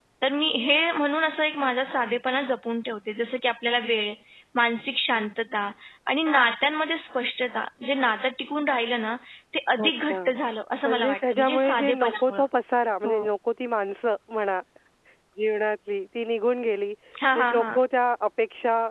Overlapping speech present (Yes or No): Yes